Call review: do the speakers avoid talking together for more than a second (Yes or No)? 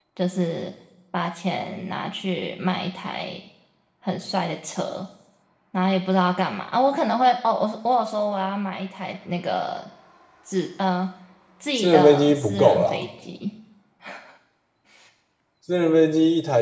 No